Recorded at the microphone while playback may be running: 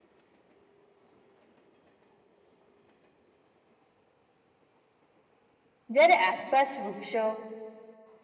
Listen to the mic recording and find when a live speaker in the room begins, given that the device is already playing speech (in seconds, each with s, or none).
5.9 s